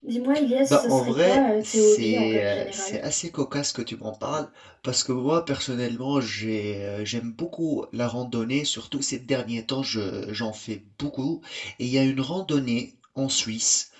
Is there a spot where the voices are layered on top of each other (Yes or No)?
Yes